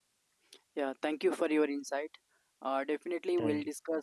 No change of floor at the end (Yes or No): Yes